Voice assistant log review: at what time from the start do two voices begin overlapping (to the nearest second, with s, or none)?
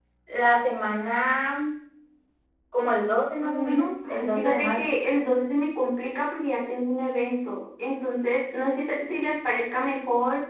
3 s